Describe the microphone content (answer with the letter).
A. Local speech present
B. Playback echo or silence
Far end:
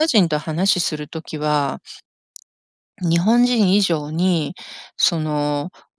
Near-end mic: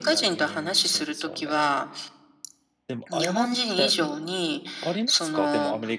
A